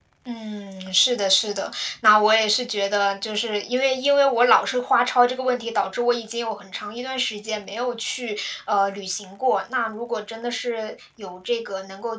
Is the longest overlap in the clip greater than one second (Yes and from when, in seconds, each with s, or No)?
No